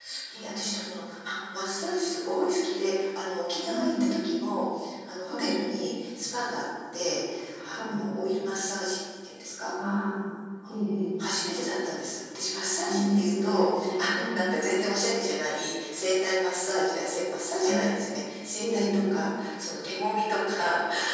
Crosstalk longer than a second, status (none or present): present